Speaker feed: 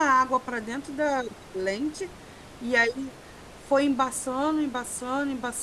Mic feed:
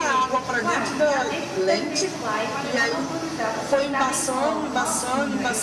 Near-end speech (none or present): present